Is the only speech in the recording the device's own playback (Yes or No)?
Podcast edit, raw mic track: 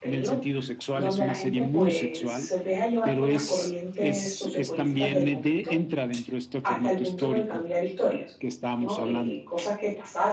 No